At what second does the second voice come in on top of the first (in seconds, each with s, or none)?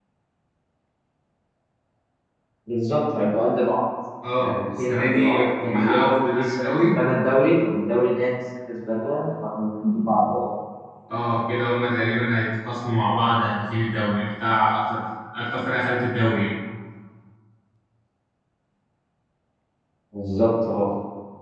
4.4 s